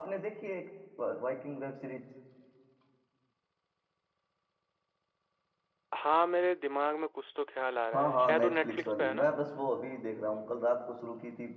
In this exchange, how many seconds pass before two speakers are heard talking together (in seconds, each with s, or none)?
7.9 s